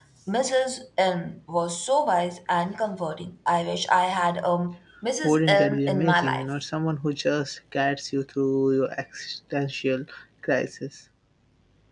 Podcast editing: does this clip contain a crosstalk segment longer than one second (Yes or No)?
Yes